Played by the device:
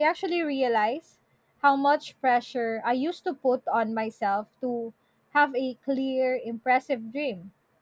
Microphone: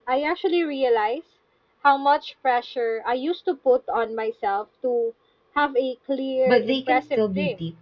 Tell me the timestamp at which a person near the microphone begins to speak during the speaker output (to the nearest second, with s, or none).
6 s